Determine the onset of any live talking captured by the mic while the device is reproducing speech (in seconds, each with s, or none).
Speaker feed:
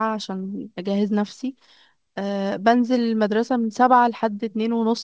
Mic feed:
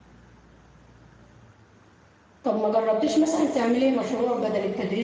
2.4 s